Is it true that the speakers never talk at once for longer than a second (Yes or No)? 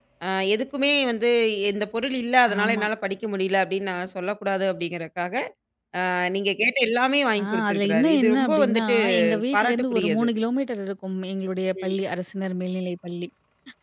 No